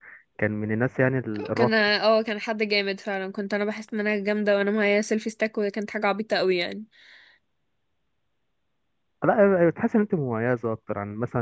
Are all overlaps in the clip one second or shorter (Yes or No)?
Yes